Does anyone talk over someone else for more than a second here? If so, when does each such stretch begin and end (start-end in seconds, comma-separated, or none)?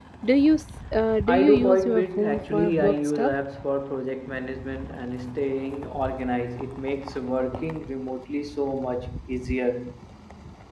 1.3-3.3